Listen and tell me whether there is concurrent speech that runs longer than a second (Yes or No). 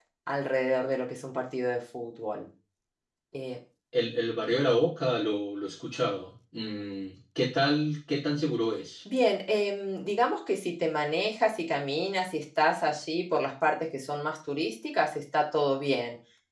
No